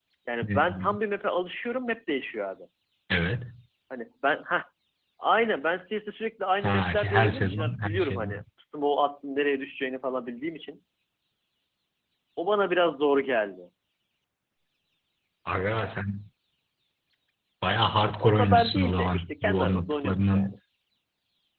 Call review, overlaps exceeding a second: present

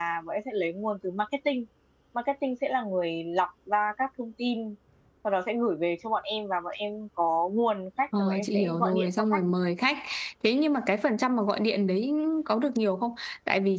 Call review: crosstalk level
present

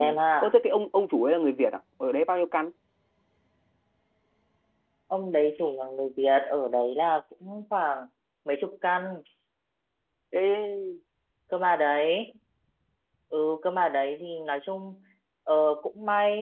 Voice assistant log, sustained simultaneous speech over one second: none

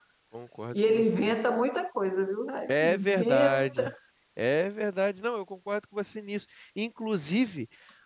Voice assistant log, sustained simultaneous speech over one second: present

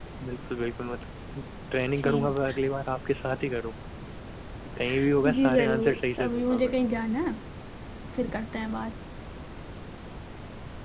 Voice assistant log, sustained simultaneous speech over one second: present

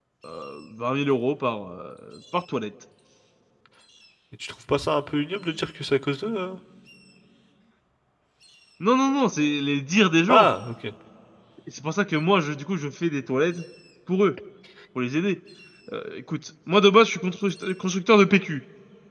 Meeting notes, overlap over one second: none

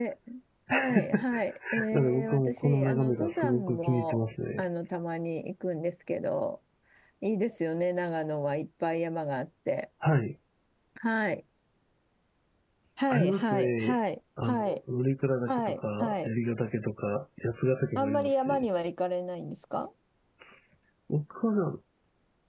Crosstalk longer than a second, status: present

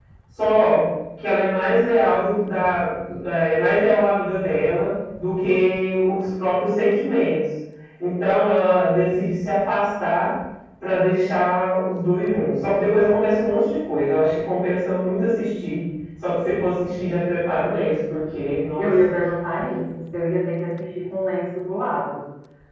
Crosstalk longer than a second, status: none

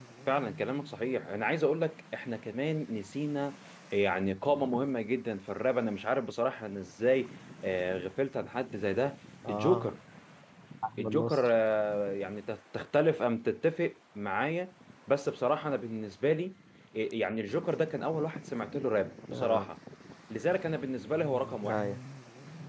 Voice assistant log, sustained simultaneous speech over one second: none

